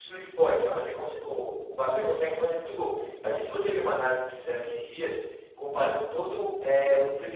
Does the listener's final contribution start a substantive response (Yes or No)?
No